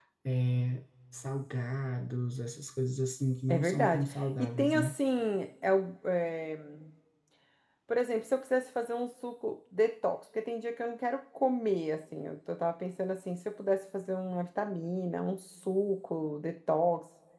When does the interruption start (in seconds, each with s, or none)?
3.5 s